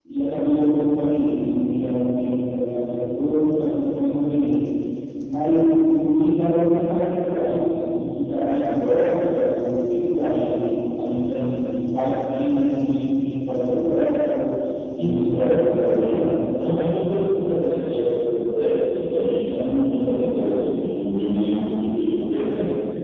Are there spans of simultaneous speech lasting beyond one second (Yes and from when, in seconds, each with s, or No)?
Yes, from 15.0 s